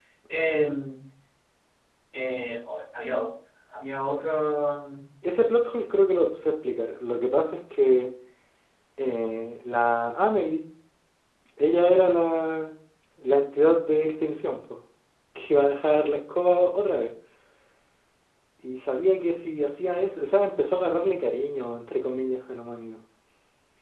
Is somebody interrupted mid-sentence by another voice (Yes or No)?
No